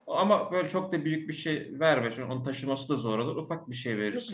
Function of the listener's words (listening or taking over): taking over